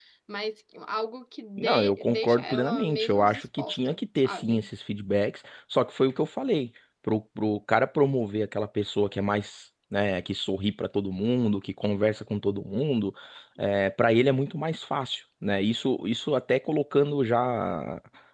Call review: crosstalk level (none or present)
present